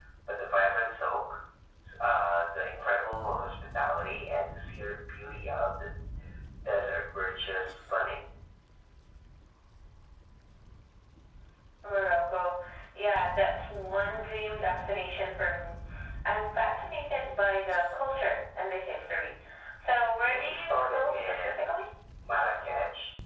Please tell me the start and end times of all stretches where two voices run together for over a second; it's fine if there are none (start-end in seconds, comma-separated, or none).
20.2-21.6